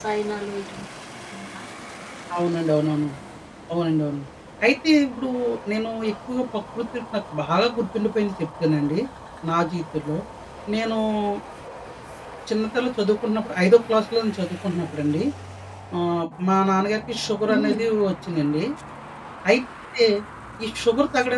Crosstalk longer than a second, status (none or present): none